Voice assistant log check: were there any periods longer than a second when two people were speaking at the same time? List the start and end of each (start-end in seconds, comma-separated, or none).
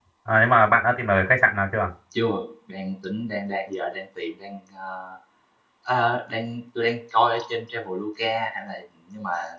none